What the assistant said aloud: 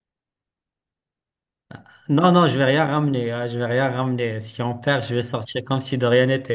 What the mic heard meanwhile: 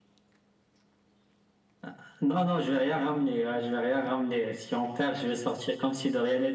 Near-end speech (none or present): none